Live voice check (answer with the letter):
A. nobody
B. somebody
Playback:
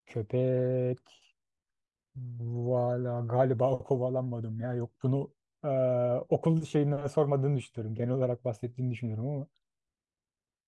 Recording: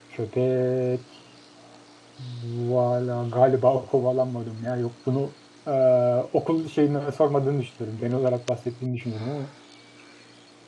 A